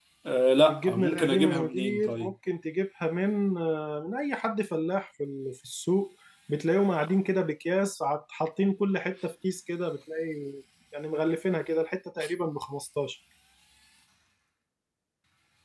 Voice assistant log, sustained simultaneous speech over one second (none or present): present